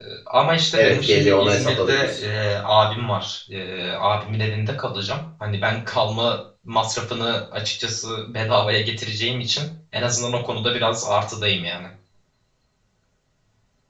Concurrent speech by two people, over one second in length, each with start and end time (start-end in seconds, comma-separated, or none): 0.8-2.2